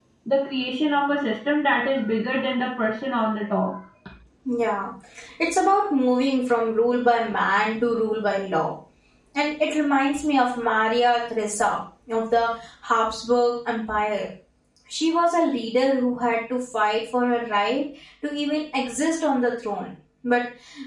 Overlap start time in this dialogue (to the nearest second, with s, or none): none